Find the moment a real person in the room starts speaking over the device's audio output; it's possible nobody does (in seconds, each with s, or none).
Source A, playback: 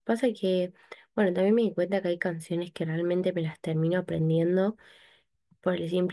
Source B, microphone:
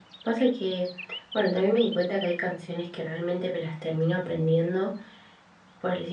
none